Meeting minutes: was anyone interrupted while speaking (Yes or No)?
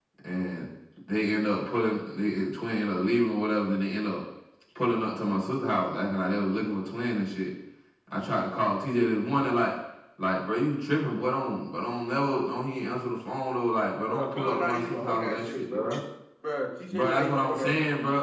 Yes